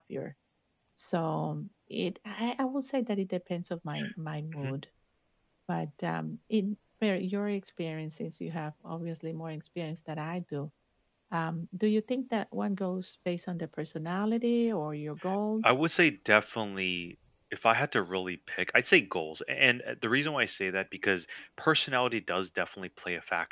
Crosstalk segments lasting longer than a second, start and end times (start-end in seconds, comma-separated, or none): none